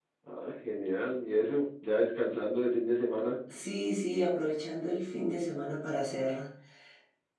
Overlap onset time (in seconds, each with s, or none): none